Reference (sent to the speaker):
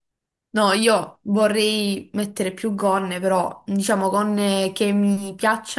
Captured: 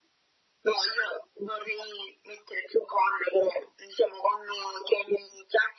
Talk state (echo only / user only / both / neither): echo only